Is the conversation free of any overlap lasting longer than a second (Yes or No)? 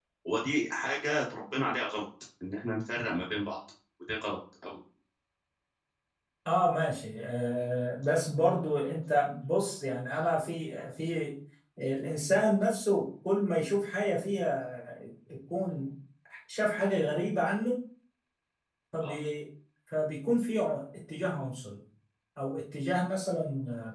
Yes